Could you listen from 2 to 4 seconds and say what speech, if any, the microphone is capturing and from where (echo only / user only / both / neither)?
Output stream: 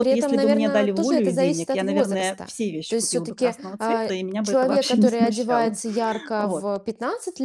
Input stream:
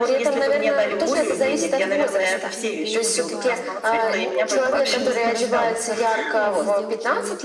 both